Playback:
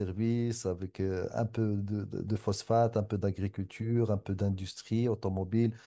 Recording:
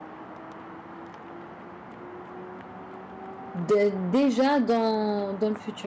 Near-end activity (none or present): present